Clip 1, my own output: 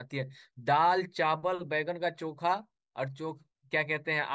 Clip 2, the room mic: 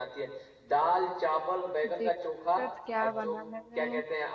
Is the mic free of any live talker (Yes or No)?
No